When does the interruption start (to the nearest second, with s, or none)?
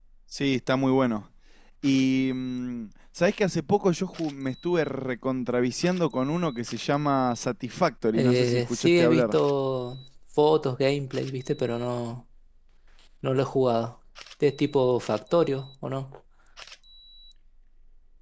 8 s